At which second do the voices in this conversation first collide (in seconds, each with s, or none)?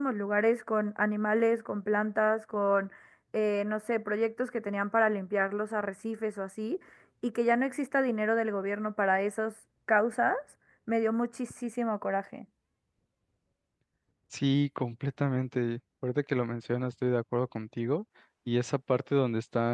none